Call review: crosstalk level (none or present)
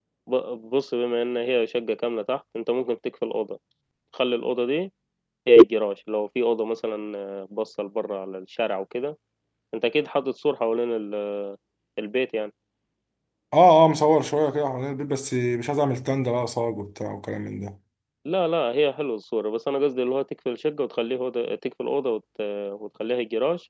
none